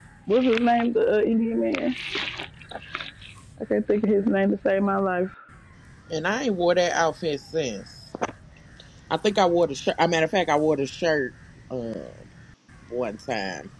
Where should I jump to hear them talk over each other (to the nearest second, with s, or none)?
none